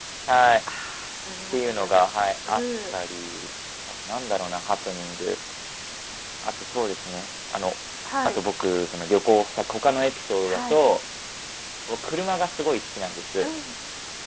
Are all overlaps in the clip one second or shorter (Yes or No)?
Yes